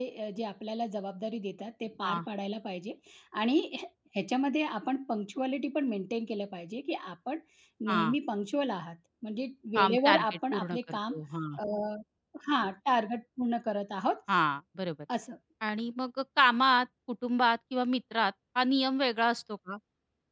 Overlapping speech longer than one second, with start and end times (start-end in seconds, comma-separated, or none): 9.8-11.1